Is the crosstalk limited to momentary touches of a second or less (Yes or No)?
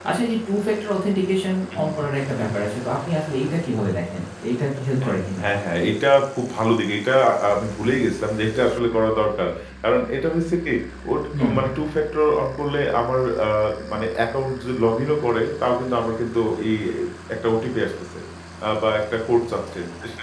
Yes